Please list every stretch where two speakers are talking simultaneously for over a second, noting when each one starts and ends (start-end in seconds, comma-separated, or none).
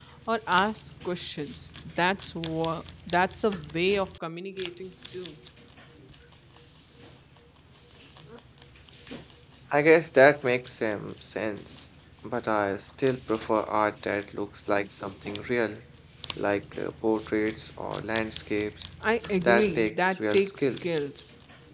19.4-20.7